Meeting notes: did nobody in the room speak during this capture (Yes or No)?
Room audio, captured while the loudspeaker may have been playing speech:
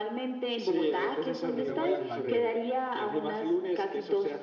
No